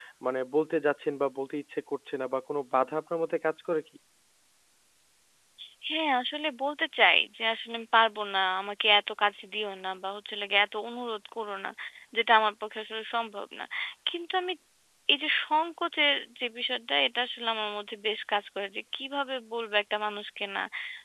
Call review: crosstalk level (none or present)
none